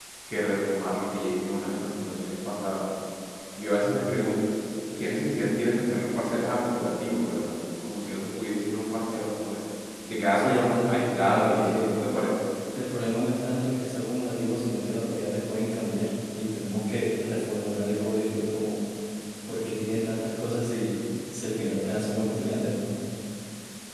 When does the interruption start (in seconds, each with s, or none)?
10.3 s